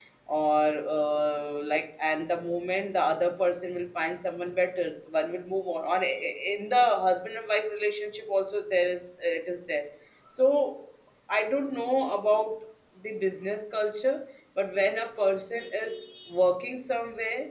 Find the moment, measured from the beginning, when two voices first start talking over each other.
none

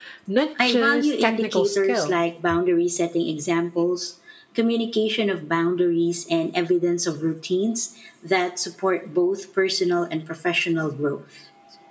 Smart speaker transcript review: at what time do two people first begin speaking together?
0.6 s

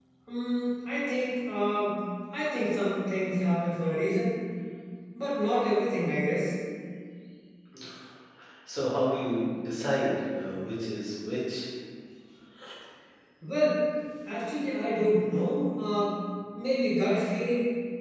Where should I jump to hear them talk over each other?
none

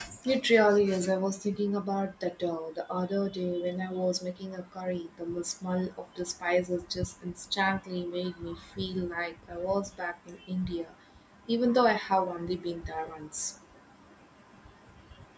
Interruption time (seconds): none

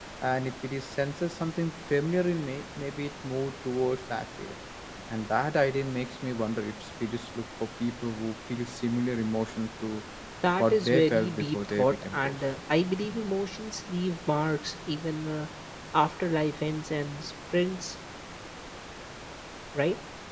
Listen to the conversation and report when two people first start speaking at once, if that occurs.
10.6 s

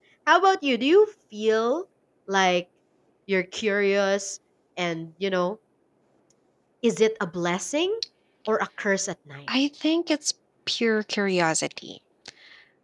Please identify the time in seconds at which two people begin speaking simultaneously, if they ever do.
none

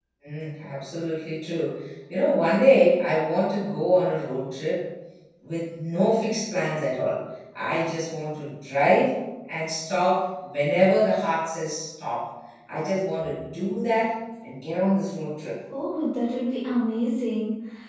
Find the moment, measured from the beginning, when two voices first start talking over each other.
none

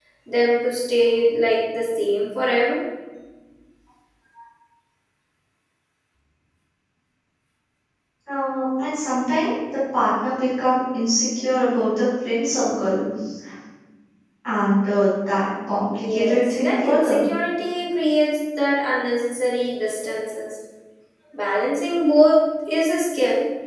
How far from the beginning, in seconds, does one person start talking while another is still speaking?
15.9 s

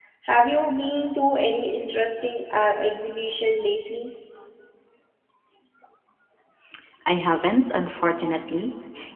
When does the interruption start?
none

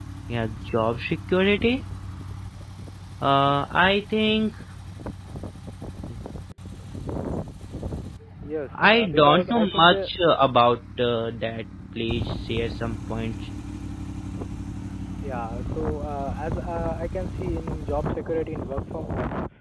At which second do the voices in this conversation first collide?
8.7 s

